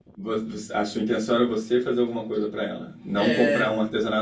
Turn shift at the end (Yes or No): No